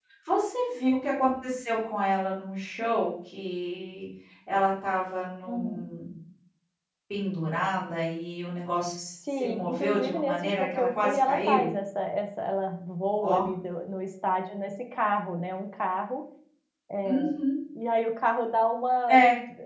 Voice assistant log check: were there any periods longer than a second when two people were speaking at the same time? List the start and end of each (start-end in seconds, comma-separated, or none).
9.3-11.7